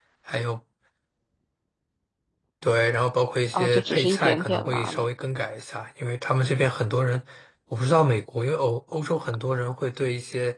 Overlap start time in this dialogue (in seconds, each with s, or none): 3.5 s